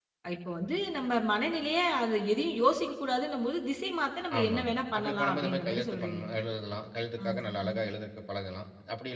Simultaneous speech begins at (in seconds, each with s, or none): 4.3 s